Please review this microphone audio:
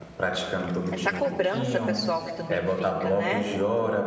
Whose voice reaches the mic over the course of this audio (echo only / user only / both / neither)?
both